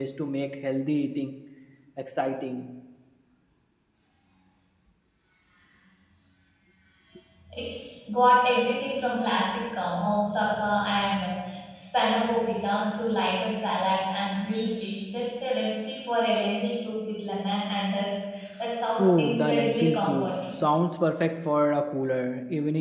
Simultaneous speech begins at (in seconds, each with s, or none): 19.0 s